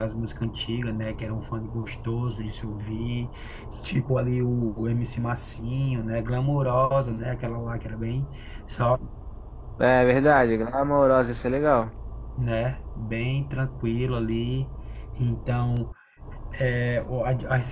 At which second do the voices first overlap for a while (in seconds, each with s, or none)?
none